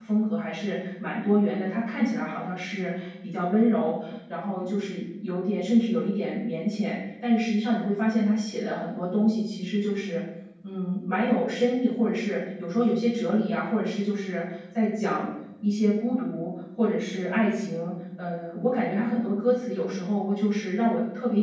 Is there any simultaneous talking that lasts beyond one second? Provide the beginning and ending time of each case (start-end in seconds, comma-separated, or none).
none